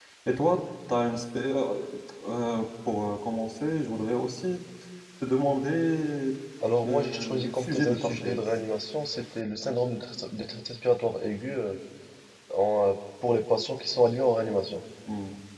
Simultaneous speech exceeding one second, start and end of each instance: 6.8-8.4

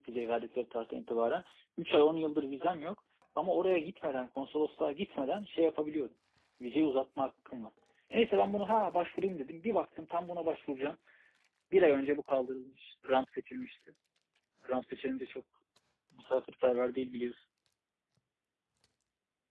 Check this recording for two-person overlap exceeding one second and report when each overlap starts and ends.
none

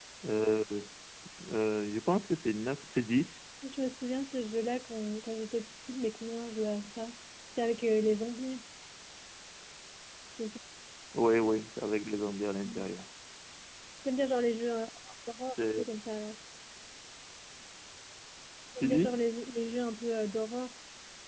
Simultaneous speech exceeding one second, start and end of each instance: none

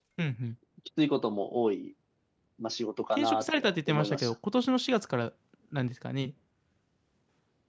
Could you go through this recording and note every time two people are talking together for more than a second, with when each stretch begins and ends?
3.1-4.3

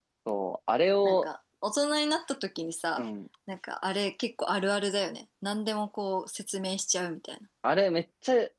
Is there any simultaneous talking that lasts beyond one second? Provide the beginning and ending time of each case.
none

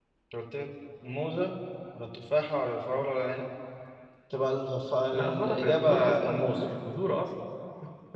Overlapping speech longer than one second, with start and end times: 5.1-6.6

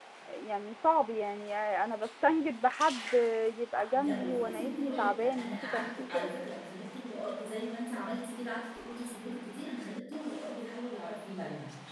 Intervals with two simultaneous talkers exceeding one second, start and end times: 3.9-6.3

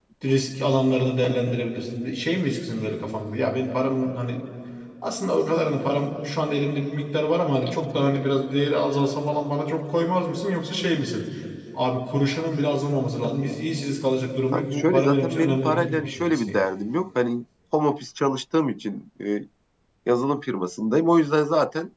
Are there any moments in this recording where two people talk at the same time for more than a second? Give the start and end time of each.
14.5-16.6

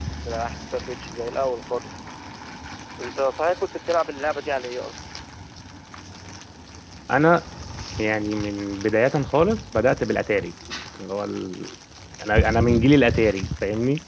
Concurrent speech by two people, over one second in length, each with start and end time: none

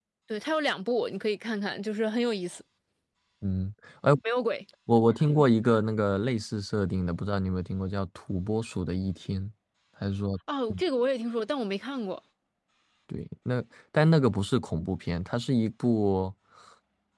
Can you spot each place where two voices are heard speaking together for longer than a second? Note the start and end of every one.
none

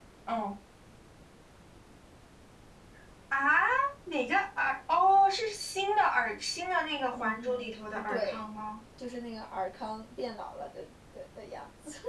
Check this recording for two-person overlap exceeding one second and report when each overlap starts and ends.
7.1-8.4

